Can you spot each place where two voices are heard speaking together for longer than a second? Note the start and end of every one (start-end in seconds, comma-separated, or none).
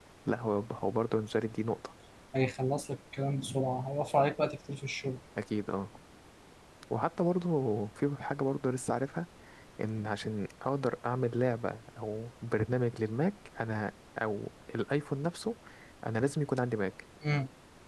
none